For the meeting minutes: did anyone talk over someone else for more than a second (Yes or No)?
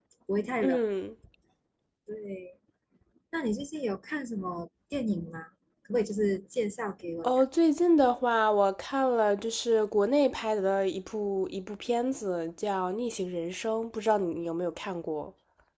No